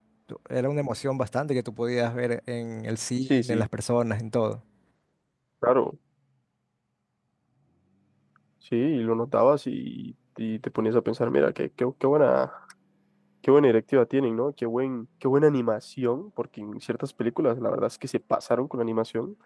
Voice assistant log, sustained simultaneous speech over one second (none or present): none